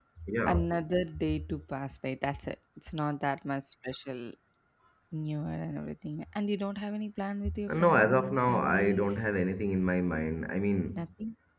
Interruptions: present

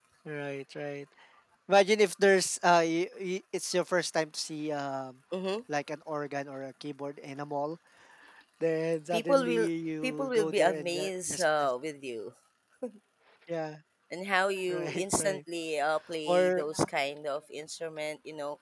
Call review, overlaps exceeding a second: present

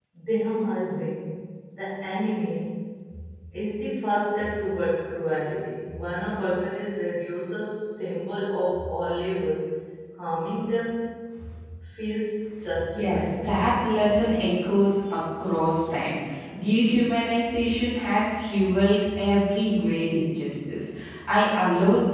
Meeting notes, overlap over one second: none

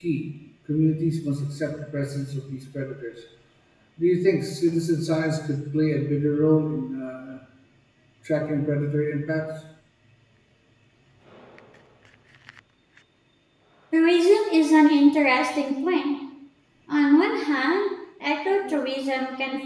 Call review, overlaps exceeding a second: none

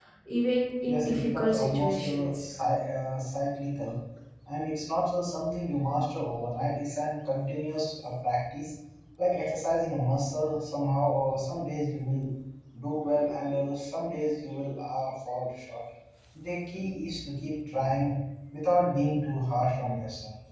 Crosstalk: present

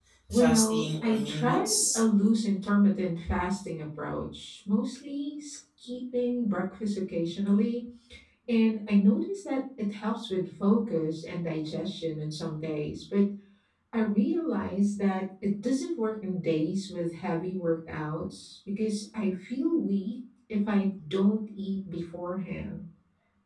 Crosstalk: present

